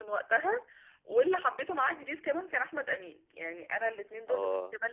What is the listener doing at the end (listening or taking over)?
listening